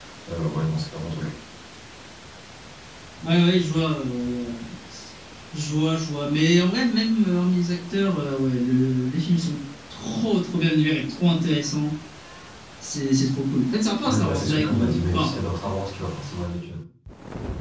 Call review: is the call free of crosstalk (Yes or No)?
No